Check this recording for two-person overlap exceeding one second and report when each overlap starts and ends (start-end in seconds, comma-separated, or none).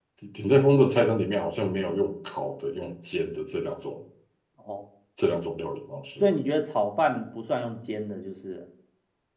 none